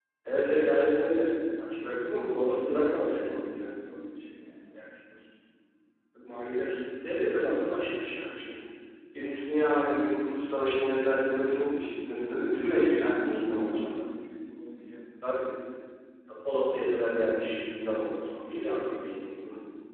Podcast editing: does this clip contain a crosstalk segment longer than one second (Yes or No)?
Yes